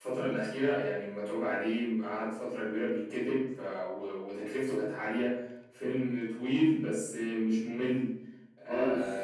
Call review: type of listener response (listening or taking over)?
listening